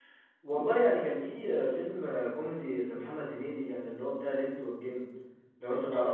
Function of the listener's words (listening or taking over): listening